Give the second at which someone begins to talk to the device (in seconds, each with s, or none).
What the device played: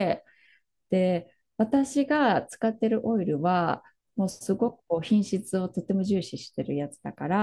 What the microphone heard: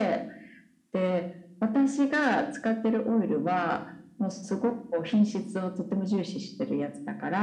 none